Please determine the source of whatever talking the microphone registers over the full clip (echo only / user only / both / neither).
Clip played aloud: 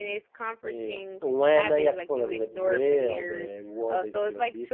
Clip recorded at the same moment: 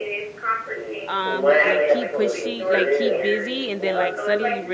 both